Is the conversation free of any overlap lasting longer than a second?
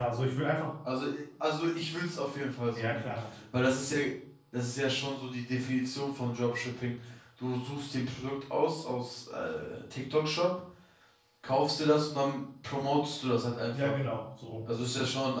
Yes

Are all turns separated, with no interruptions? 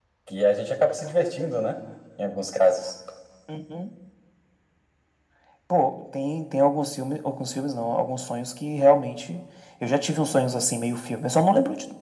Yes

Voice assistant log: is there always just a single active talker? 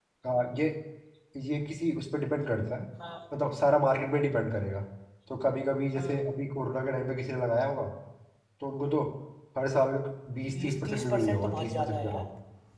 No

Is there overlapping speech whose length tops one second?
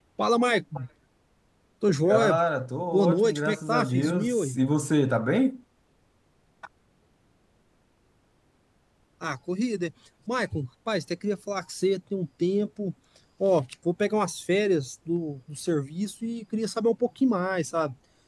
Yes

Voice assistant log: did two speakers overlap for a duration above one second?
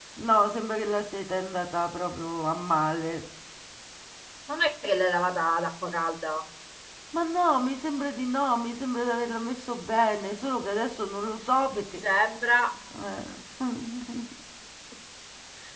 No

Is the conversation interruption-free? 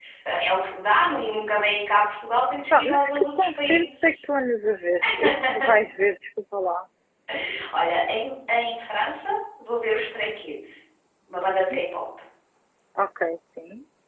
No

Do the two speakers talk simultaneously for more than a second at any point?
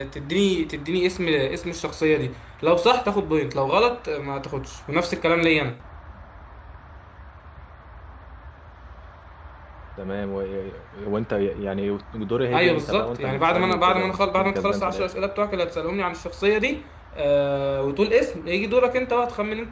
Yes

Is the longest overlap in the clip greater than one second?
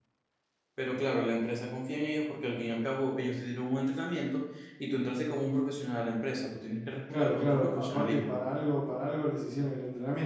Yes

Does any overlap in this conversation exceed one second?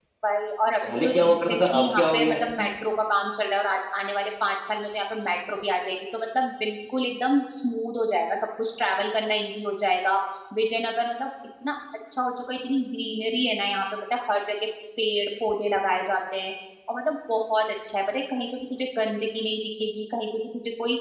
Yes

